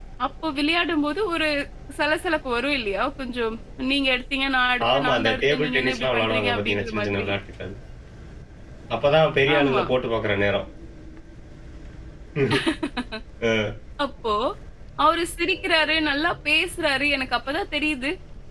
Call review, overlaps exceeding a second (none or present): present